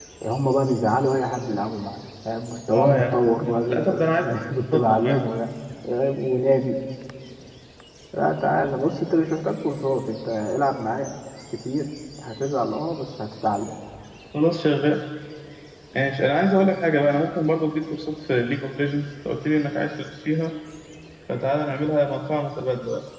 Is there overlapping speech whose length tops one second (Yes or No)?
Yes